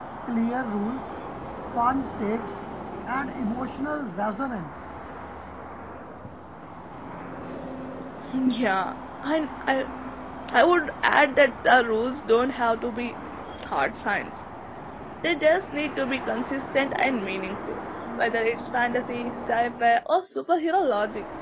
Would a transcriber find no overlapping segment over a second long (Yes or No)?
Yes